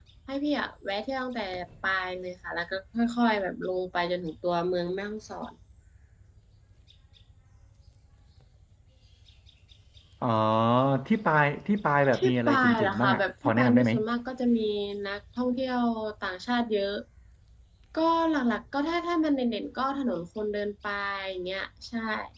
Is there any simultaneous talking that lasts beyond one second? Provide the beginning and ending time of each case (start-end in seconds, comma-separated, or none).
12.1-13.9